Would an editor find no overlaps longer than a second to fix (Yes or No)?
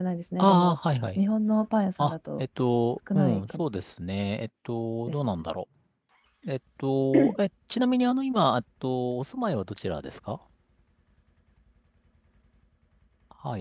Yes